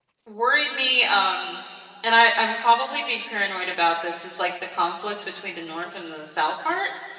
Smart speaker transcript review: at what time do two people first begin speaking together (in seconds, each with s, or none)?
none